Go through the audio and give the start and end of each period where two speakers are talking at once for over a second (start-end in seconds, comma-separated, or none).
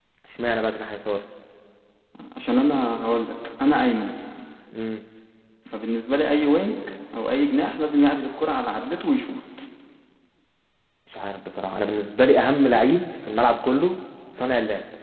none